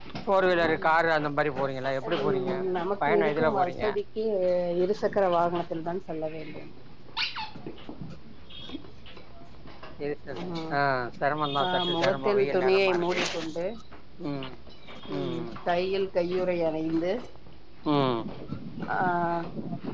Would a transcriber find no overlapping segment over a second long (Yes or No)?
No